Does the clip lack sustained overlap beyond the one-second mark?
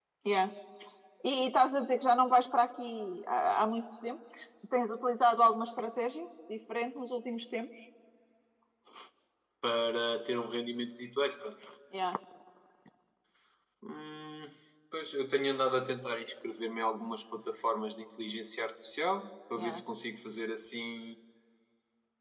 Yes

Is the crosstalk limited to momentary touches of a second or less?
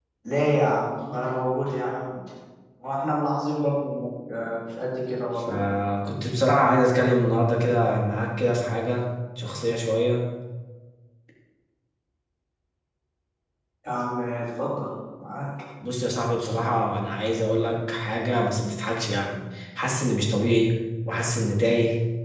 Yes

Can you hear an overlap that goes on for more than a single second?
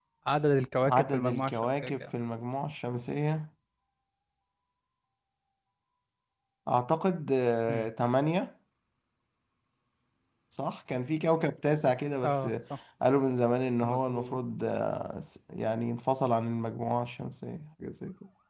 Yes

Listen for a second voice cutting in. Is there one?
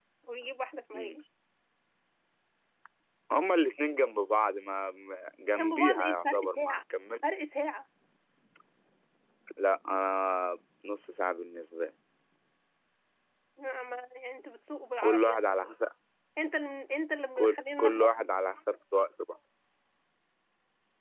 Yes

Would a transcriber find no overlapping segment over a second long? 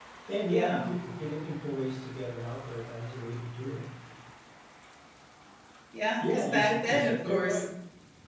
No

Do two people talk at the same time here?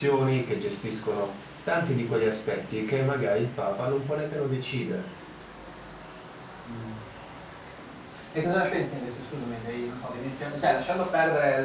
No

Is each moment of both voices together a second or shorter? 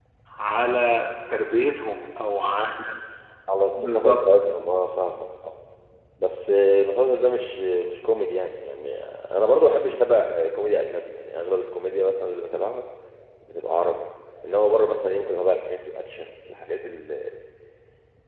Yes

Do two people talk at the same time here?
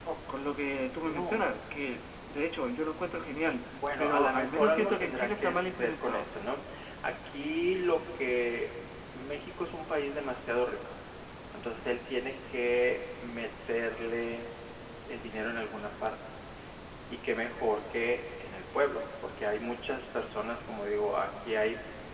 Yes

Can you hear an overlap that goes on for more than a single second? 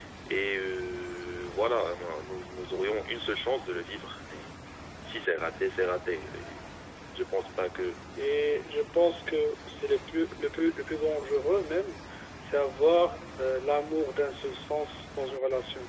No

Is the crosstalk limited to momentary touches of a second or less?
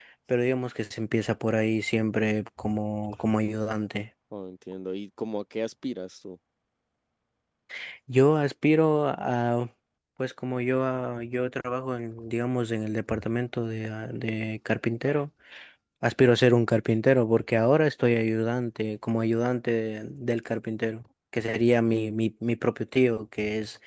Yes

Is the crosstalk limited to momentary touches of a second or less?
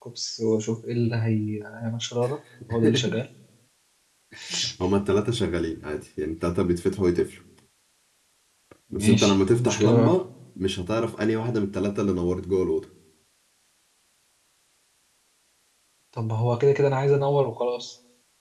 No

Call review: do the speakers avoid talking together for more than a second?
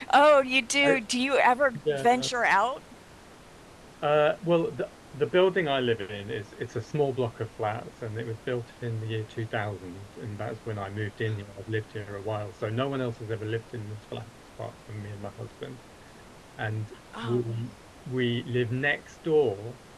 Yes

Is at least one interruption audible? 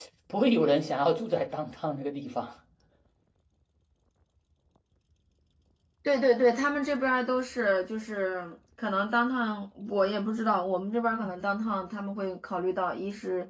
No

